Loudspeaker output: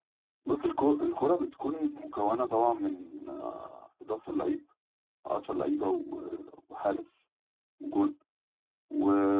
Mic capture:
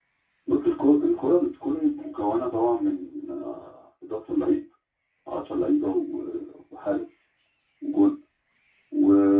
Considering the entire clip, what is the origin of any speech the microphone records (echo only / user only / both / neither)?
echo only